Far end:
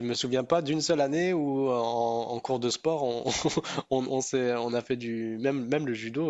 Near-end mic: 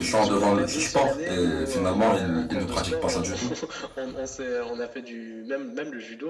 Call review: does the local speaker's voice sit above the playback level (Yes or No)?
Yes